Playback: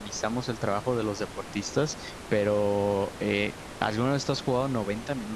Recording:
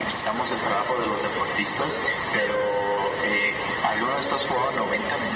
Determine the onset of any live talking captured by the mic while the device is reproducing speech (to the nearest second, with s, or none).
none